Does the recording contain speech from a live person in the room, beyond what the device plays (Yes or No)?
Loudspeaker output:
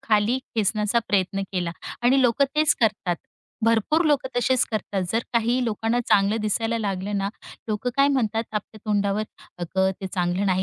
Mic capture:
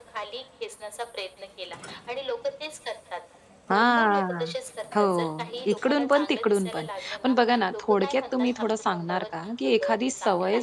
Yes